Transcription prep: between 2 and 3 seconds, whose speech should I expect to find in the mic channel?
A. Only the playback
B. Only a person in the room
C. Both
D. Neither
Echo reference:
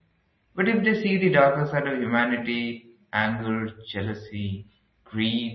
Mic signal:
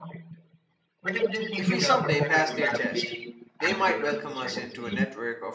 C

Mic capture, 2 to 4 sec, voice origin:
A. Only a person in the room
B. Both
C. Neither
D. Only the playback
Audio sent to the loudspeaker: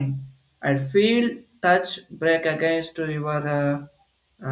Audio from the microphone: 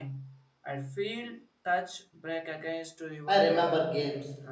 B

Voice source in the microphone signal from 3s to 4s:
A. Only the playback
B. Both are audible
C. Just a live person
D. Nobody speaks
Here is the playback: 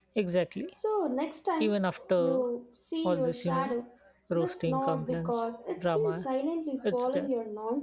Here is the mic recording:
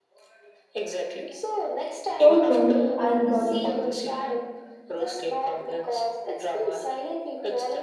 B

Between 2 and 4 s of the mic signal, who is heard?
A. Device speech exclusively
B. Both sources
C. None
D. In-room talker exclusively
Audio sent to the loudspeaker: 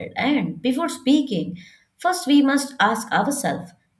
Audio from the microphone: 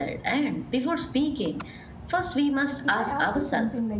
B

